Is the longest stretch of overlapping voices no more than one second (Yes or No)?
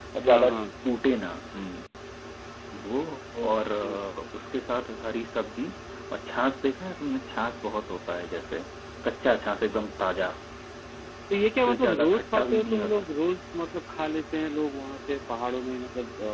No